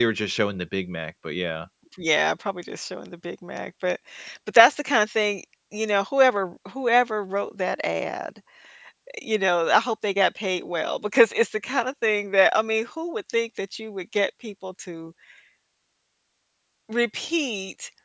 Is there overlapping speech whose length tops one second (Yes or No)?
No